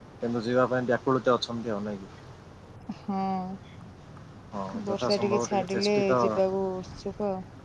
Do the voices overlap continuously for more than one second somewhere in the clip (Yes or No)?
Yes